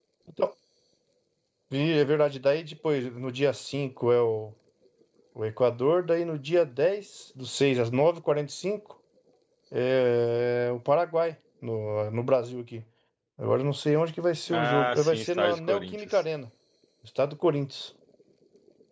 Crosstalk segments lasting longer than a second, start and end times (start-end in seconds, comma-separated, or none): 14.5-16.2